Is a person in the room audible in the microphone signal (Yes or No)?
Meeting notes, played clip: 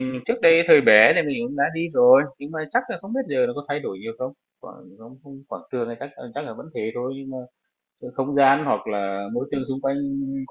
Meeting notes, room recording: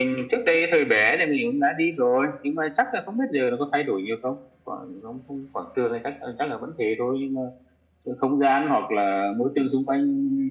No